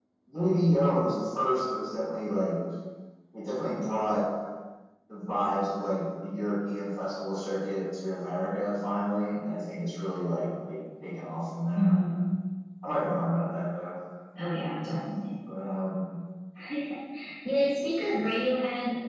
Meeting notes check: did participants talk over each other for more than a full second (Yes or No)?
No